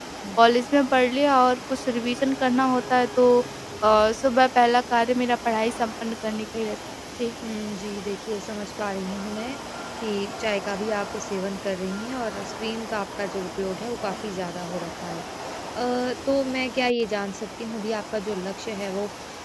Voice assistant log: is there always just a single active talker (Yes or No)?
Yes